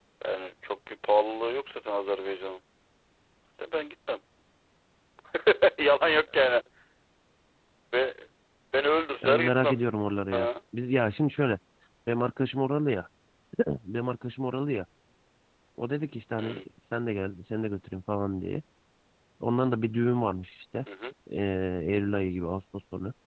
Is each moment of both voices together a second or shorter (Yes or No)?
Yes